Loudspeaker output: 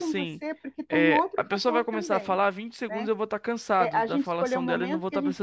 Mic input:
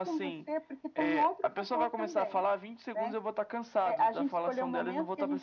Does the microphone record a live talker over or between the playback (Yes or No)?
No